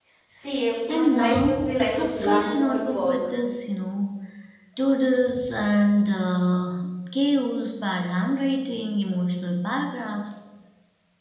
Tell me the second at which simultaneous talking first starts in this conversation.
0.9 s

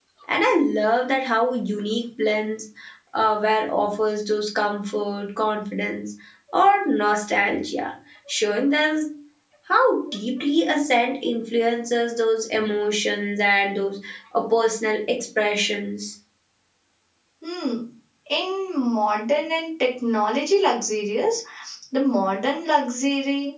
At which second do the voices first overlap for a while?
none

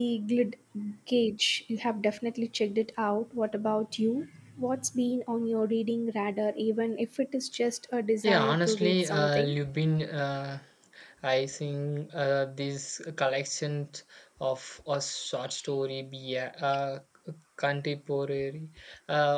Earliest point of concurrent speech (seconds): 8.2 s

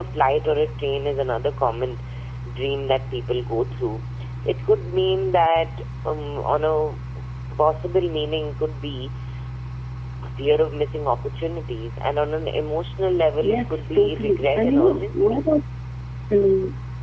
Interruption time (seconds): 13.4 s

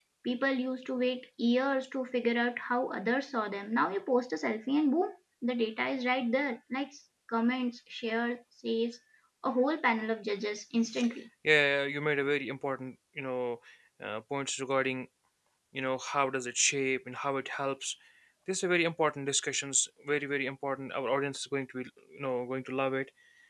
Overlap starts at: none

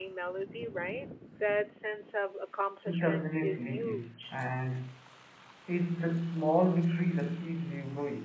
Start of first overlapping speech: 2.9 s

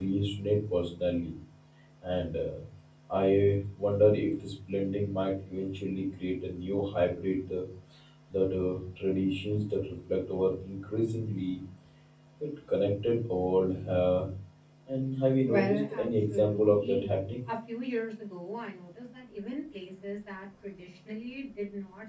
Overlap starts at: 15.4 s

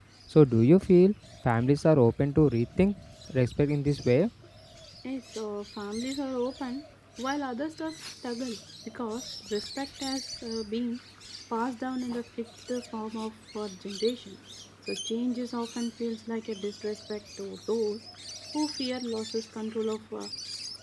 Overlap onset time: none

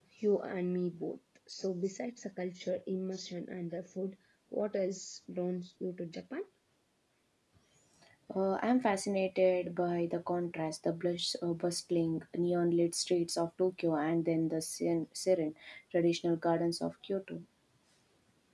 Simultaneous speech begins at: none

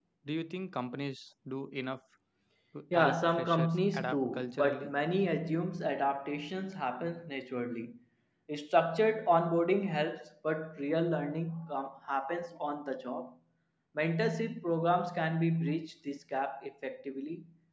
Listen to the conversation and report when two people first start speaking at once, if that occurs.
2.9 s

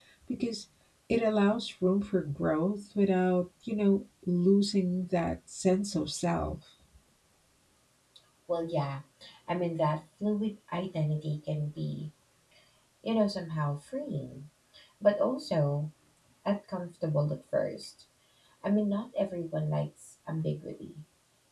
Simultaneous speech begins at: none

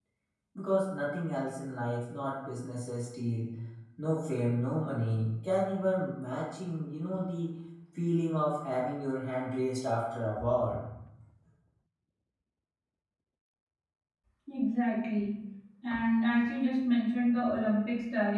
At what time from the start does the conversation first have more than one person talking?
none

